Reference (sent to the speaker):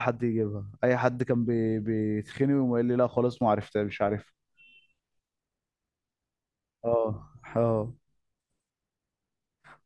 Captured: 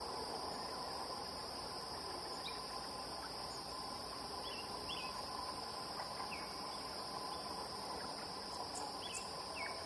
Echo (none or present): none